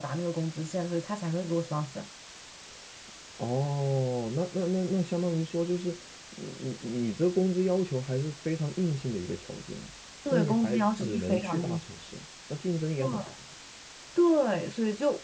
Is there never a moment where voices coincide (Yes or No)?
No